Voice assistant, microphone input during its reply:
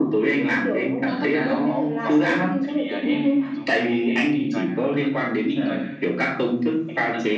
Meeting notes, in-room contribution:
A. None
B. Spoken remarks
B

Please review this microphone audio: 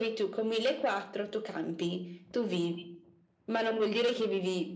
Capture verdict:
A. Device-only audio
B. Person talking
A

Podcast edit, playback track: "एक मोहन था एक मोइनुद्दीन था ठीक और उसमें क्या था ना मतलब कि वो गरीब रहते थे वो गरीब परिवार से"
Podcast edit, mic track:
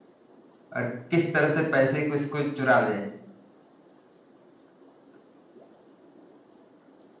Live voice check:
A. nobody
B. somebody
B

